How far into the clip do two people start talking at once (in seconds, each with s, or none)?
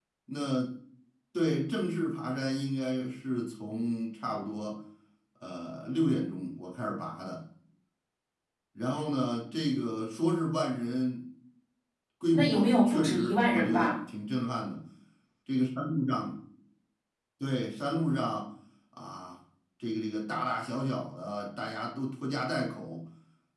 12.3 s